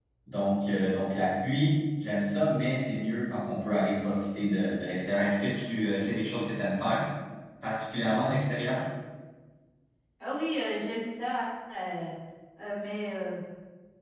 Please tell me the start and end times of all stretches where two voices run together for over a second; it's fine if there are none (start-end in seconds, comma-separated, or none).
none